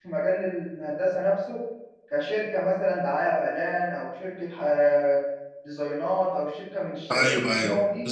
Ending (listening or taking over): taking over